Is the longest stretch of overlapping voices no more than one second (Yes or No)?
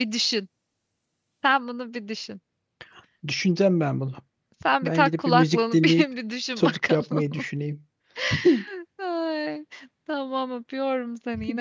No